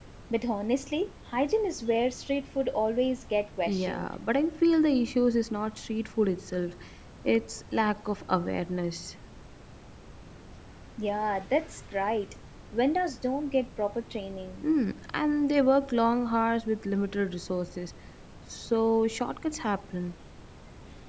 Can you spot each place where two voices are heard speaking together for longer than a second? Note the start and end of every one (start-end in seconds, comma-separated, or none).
none